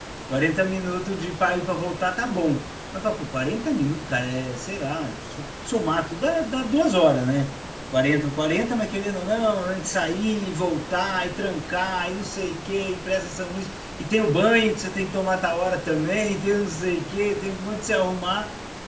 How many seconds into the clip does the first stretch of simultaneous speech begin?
none

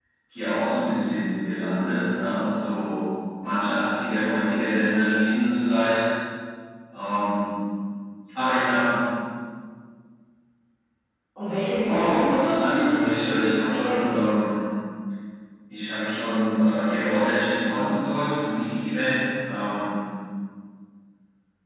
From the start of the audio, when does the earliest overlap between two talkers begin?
12 s

